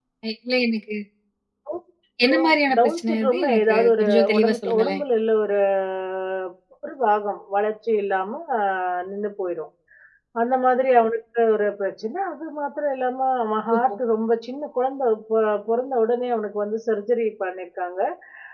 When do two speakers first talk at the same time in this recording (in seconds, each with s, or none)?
2.3 s